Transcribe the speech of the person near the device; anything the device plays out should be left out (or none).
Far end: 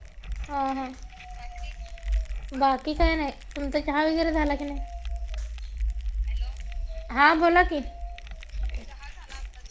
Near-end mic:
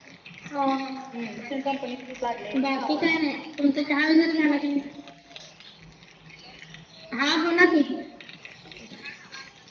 ह्, तिथं कंपनीमध्येच लागले कामाला.